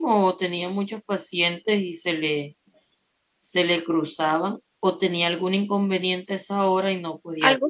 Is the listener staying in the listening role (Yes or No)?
No